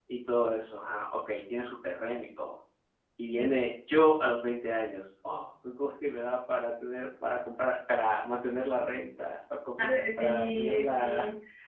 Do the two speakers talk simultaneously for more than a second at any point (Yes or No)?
Yes